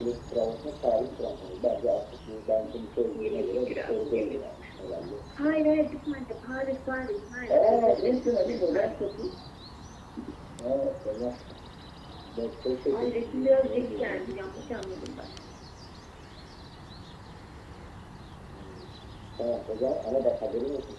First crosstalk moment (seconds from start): 3 s

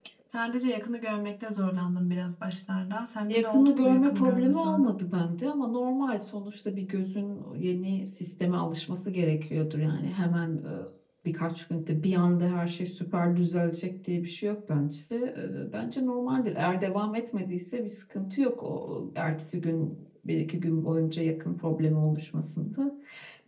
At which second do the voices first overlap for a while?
3 s

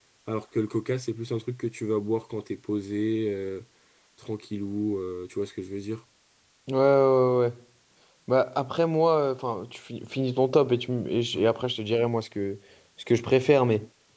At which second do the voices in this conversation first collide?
none

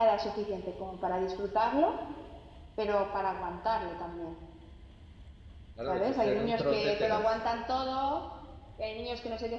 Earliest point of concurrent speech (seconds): 6 s

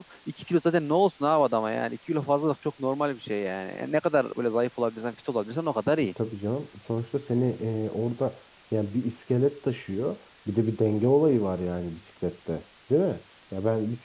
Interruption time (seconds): none

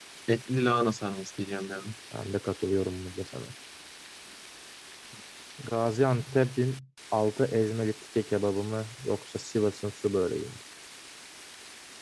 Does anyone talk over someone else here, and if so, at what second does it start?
none

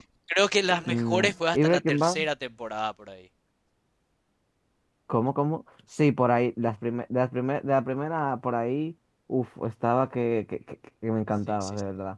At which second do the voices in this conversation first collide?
1 s

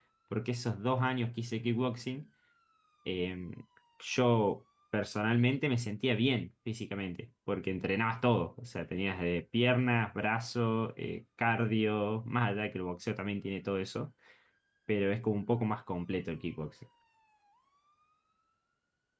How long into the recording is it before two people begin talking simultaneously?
none

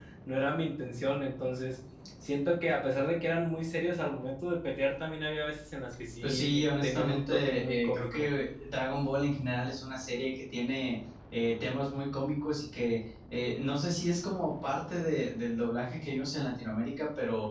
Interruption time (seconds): 6 s

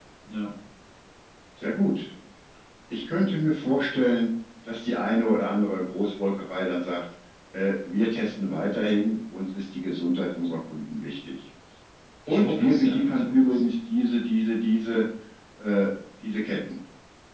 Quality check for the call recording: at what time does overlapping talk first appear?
12 s

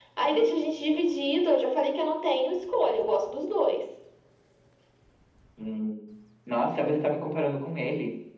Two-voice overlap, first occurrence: none

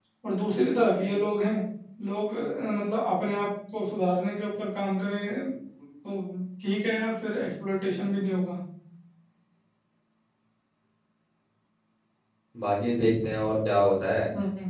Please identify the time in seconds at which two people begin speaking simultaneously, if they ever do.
none

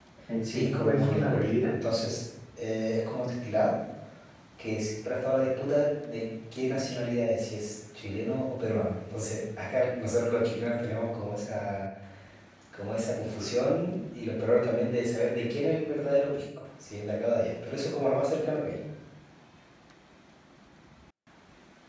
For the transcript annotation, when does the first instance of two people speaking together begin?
1 s

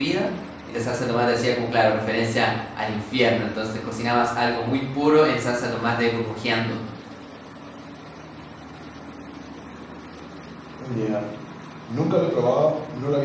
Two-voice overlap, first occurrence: none

